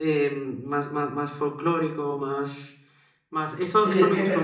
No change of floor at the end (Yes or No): No